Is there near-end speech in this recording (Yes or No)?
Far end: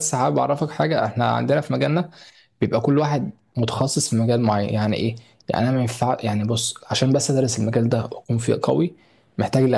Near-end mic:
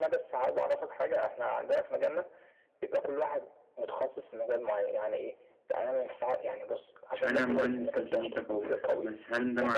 Yes